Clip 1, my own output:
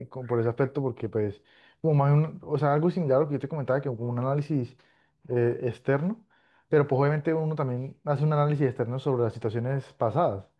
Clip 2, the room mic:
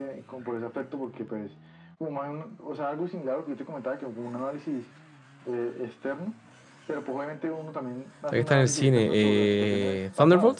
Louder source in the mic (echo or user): user